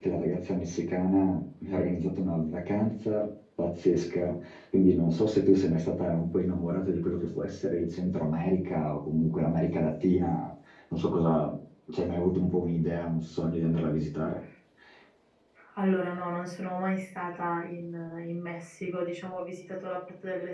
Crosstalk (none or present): none